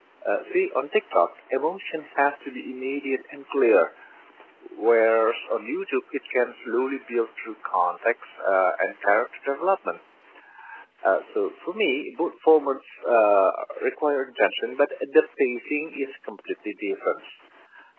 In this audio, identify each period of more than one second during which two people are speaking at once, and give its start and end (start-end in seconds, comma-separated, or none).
none